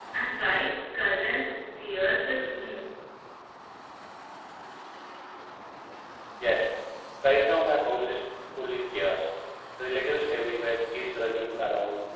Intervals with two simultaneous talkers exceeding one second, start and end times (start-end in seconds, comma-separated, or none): none